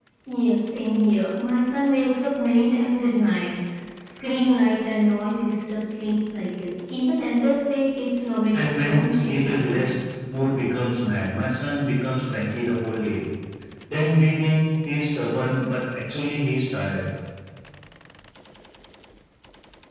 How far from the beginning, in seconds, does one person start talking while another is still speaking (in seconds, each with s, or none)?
8.5 s